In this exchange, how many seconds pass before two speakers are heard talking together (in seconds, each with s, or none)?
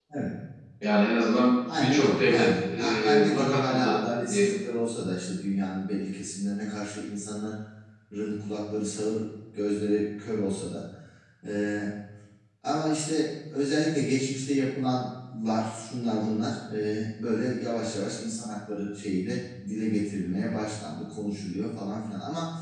1.7 s